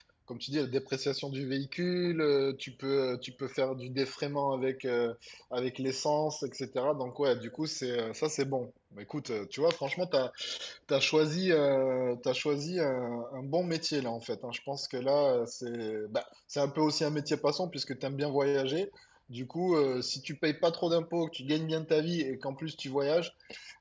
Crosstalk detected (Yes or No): No